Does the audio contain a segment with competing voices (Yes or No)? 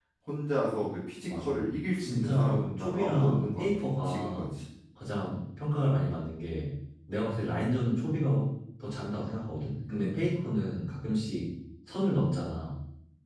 Yes